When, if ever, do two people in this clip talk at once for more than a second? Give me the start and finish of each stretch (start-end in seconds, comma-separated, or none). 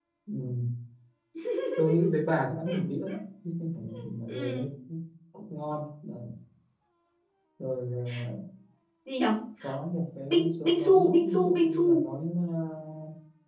10.3-12.0